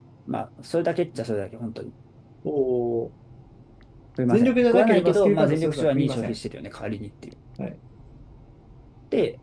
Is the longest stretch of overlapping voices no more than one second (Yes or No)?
No